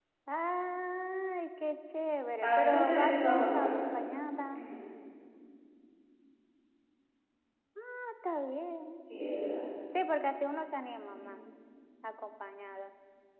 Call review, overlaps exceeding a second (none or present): present